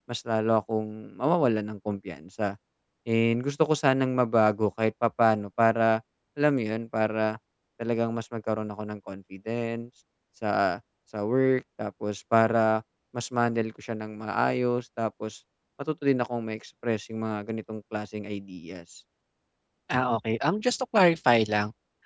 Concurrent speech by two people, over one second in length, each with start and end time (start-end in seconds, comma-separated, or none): none